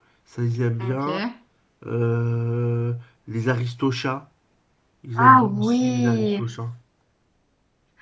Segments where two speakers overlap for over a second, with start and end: 5.2-6.5

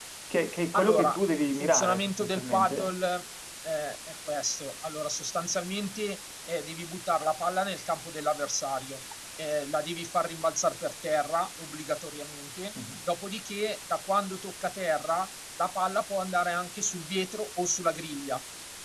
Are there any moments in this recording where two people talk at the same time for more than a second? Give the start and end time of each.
0.7-2.9

